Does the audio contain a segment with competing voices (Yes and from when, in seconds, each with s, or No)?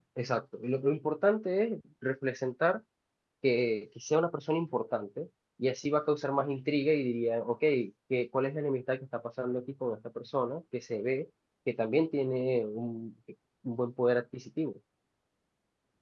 No